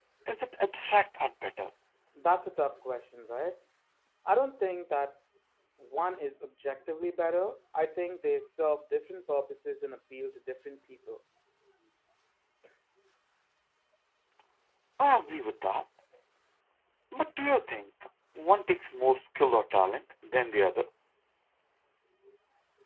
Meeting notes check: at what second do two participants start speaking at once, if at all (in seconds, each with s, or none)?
none